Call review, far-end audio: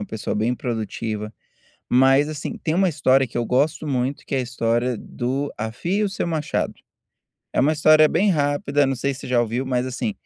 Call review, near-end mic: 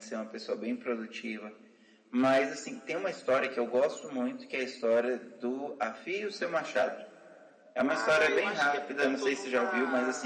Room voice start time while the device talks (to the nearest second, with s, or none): 8 s